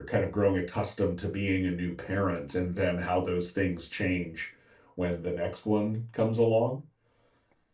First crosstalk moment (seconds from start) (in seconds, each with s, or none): none